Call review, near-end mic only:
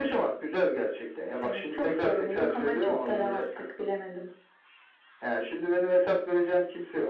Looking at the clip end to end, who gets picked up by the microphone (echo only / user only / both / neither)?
echo only